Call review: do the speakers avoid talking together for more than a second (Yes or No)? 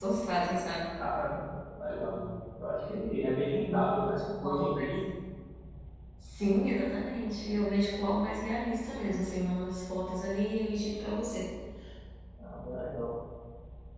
No